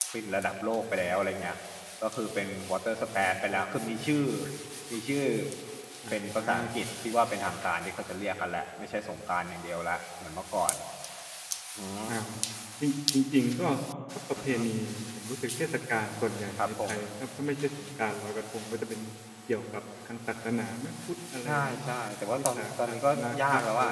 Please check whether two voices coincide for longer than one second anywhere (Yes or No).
Yes